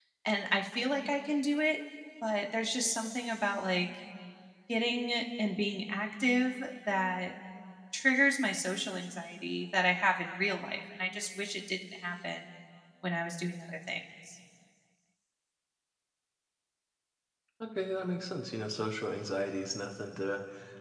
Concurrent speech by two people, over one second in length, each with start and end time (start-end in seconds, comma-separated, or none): none